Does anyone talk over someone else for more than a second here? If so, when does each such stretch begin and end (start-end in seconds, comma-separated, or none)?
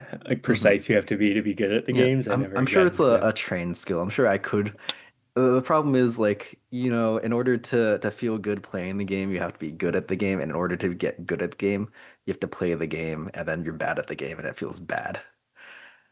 1.9-3.3